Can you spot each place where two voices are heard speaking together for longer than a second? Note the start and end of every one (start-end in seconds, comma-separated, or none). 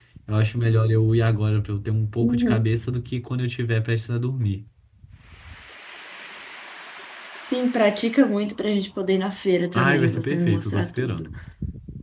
9.7-11.3